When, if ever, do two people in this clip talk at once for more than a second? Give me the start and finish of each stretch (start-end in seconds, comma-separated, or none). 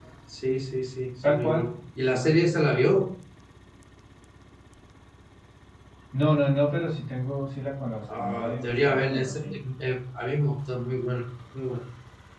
8.2-9.5